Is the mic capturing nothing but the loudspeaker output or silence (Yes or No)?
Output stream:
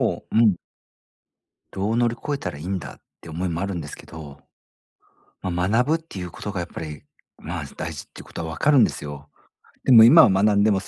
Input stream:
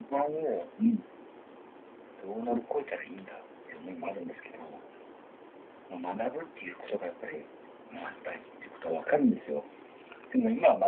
Yes